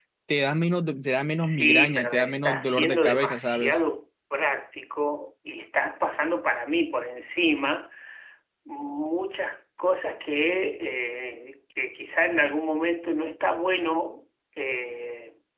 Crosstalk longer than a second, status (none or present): present